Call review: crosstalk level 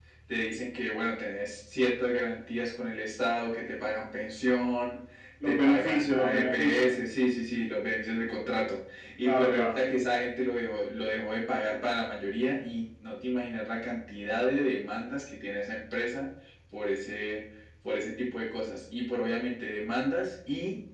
present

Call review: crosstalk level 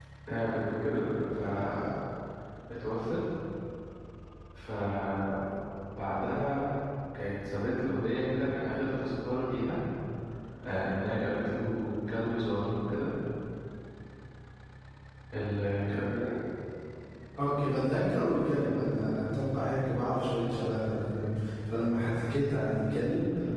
none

